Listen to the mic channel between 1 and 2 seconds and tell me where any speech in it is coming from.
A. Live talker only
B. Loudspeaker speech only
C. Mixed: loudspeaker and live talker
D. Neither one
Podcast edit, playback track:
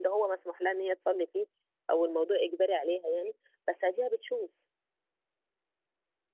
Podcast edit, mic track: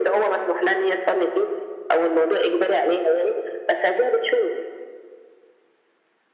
B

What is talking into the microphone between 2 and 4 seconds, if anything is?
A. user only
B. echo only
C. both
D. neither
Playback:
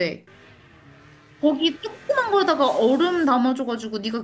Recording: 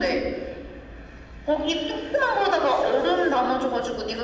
B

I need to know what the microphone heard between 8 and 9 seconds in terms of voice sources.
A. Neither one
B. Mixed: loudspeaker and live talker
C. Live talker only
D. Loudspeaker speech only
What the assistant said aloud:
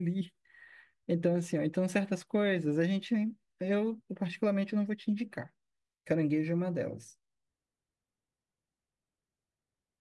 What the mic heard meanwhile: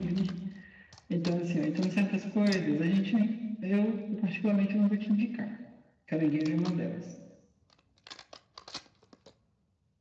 A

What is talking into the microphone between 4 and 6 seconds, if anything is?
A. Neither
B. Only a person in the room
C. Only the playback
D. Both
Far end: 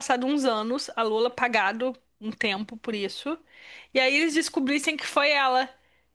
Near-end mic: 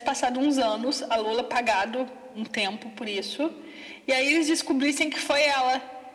C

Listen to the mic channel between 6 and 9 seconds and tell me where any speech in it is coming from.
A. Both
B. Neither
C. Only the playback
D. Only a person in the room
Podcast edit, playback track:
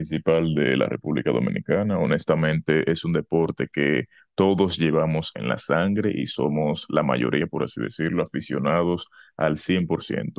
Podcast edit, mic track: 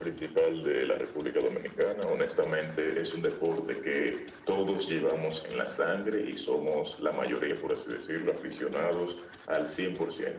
C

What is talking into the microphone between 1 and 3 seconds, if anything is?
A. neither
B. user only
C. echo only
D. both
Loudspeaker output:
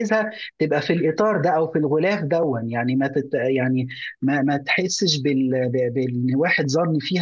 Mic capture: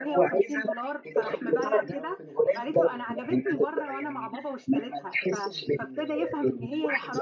D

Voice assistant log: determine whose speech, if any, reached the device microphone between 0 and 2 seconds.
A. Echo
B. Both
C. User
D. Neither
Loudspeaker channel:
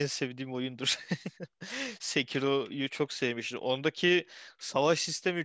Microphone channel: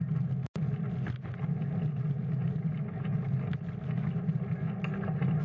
D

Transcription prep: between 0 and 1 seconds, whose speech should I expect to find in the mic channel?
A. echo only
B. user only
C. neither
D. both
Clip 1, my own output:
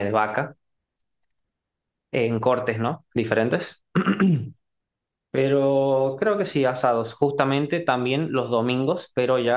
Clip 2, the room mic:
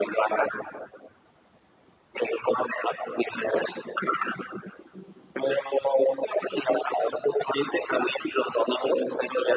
A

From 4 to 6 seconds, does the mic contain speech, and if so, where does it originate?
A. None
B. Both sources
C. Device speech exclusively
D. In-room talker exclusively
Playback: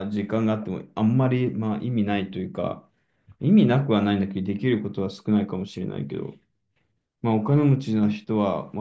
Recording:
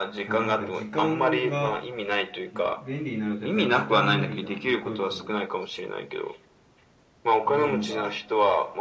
B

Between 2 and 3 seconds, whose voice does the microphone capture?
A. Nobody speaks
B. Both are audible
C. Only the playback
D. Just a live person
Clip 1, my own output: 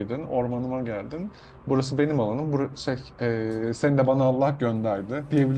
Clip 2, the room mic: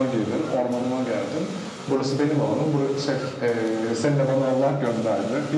C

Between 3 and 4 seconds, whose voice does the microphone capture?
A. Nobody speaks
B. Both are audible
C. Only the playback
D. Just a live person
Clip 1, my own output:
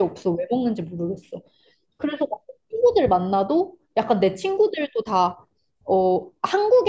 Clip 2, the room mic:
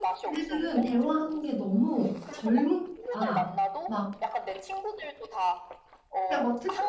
B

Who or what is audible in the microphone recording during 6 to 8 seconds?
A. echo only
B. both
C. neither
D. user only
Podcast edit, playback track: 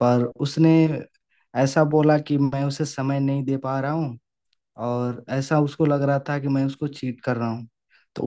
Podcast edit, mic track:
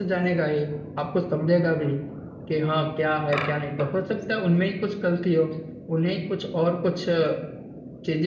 D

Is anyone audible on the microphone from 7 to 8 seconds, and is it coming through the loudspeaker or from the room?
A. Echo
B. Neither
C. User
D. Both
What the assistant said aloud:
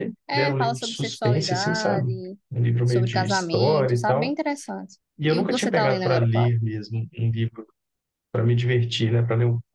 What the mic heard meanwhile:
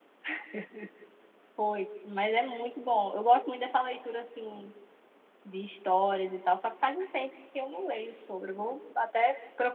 C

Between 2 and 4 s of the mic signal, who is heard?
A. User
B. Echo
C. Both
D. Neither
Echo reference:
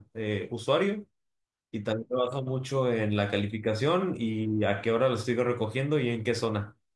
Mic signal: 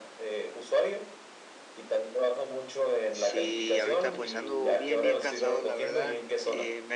C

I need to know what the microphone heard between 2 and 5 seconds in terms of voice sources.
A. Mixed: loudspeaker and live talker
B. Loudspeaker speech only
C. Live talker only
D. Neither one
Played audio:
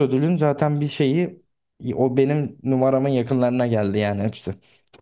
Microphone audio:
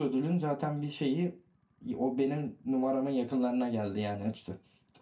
B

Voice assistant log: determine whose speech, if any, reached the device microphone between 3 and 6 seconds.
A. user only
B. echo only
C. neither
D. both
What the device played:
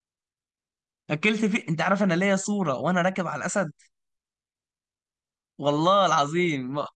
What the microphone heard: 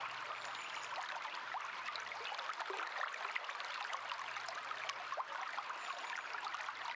C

